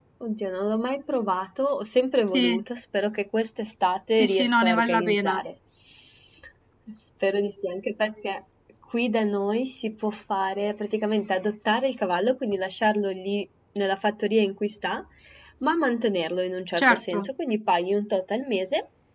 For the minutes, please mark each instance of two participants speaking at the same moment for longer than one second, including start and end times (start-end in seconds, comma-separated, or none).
4.2-5.4